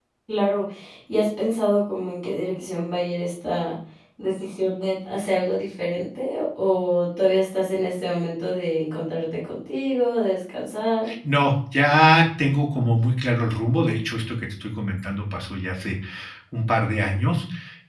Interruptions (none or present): none